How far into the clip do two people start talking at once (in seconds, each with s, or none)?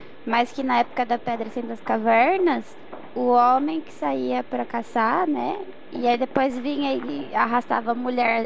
none